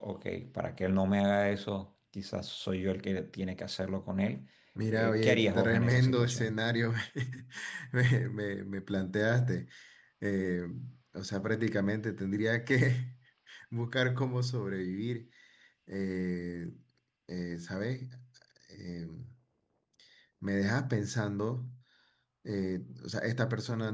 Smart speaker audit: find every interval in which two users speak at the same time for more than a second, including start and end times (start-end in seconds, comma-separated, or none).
4.9-6.5